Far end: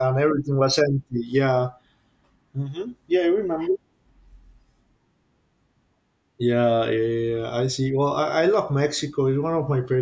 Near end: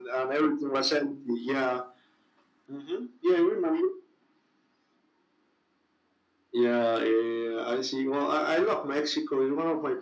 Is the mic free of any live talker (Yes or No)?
Yes